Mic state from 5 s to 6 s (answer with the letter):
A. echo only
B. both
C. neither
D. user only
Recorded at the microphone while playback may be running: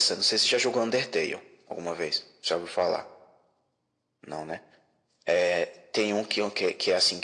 A